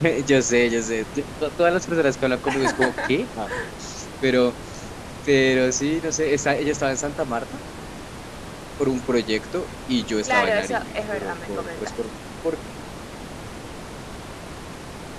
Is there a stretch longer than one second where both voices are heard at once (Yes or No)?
Yes